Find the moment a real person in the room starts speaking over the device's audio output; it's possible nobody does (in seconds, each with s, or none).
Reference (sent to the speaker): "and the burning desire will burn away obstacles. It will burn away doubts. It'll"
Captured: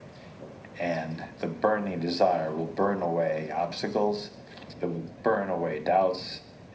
none